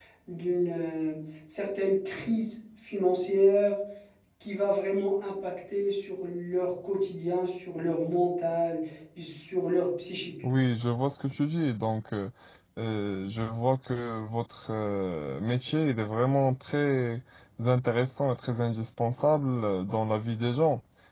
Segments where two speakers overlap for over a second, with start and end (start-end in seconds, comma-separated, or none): none